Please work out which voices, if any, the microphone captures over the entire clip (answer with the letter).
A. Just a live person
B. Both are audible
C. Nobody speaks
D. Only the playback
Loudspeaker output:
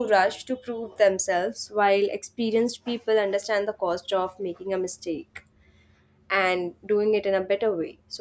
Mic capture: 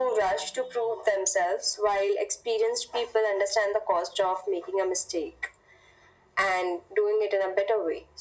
D